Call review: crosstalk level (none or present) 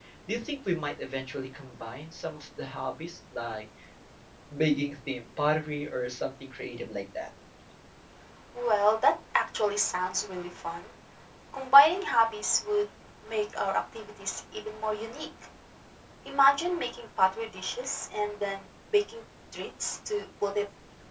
none